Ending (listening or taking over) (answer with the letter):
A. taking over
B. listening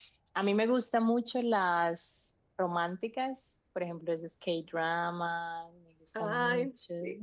A